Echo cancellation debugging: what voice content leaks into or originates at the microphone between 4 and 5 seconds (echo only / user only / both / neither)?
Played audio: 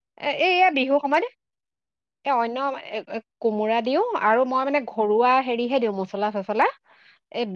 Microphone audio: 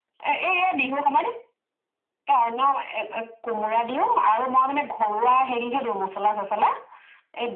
echo only